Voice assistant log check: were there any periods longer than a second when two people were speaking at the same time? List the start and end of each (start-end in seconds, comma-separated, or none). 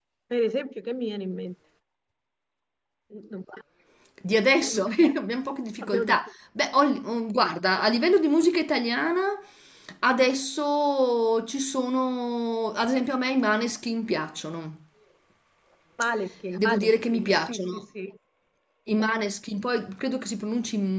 16.6-17.8